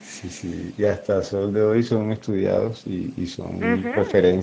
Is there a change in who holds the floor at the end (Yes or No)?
No